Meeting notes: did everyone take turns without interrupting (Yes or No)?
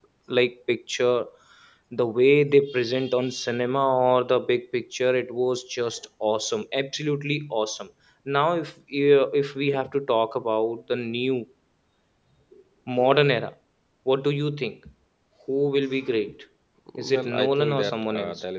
No